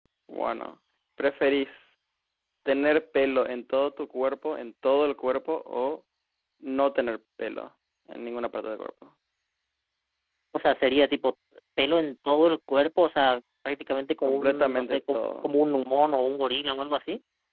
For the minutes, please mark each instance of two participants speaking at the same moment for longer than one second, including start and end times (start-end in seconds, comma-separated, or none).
14.2-15.5